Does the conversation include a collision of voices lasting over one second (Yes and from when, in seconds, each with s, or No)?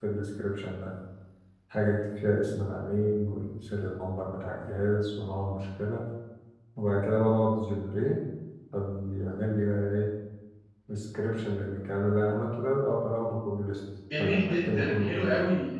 Yes, from 14.1 s